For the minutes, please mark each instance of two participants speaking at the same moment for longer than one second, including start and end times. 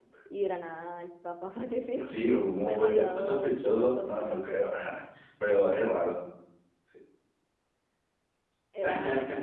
2.7-4.5

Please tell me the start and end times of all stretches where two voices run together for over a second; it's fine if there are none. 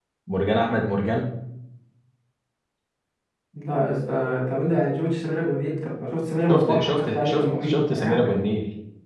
6.5-8.3

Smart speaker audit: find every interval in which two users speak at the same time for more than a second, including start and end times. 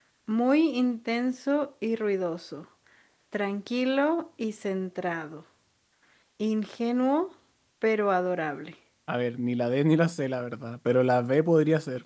none

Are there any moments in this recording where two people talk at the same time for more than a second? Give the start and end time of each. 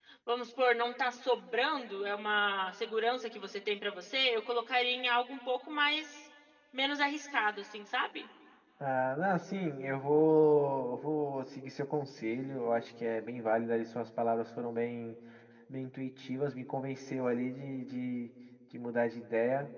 none

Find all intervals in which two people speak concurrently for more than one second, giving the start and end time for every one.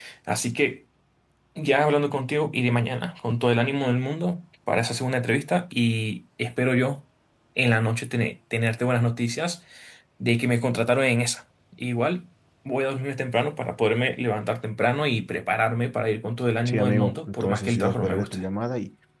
16.6-18.4

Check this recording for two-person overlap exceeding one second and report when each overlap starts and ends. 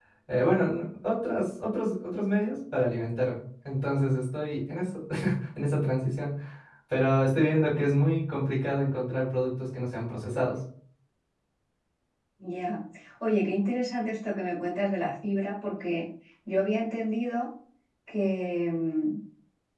none

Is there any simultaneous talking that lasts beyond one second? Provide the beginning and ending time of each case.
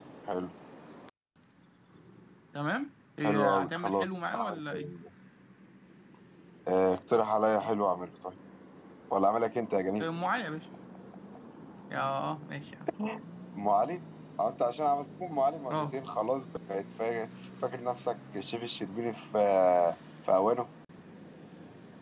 3.2-5.0

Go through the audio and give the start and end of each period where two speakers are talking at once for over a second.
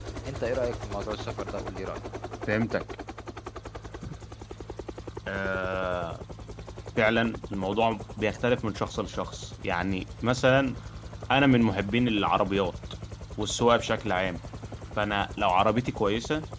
none

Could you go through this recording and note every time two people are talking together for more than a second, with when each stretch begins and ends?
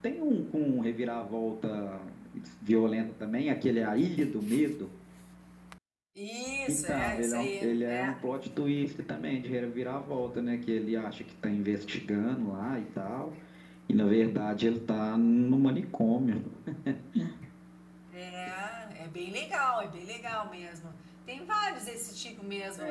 6.7-8.1

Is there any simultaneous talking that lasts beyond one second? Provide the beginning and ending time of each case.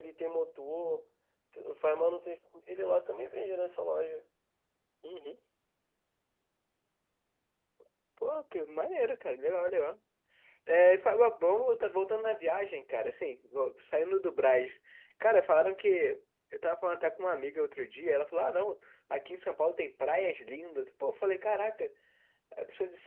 none

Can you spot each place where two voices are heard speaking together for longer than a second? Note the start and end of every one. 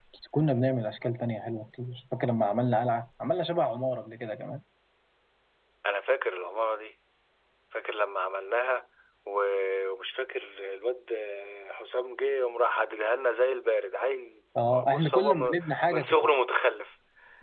14.8-16.1

